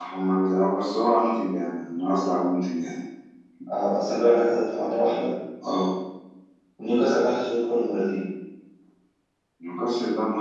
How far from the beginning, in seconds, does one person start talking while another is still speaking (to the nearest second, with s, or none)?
none